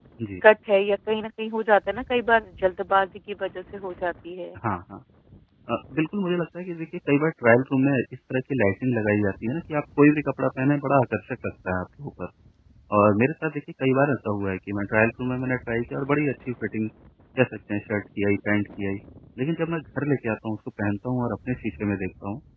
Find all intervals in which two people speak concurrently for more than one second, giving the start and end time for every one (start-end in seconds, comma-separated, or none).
none